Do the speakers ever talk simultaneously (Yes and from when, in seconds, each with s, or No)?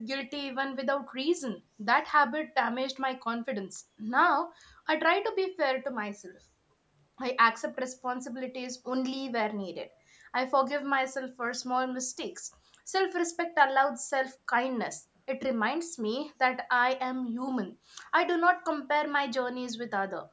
No